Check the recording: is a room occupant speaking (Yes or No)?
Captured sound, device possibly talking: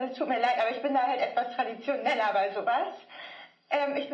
No